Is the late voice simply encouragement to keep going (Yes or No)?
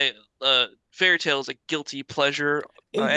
No